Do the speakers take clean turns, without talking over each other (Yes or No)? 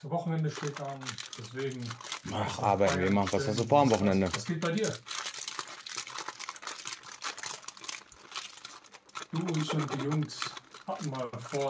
No